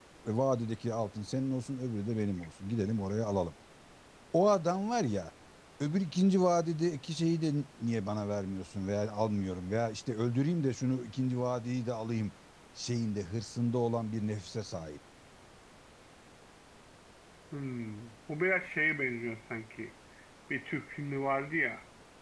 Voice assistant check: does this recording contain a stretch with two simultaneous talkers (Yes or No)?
No